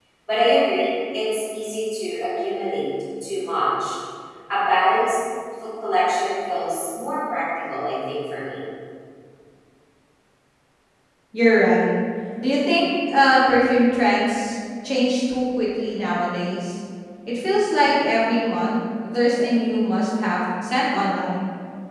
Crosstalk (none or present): none